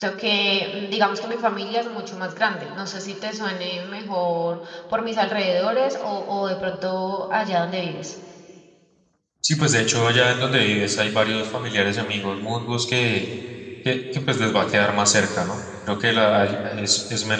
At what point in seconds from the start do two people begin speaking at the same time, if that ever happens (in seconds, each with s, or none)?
none